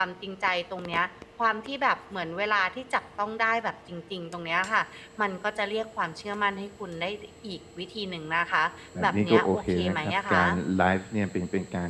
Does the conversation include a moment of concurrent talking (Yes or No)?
Yes